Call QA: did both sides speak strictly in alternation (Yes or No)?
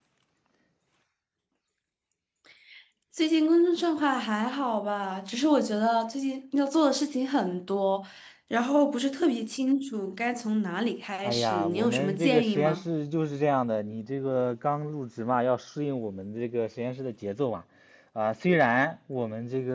No